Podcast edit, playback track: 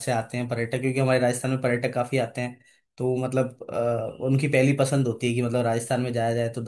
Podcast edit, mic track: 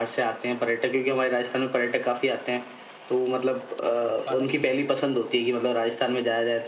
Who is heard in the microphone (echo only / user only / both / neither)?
both